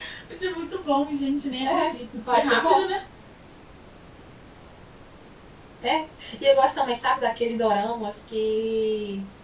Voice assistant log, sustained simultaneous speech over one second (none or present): present